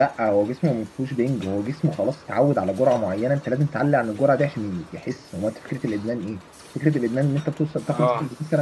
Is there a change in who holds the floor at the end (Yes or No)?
No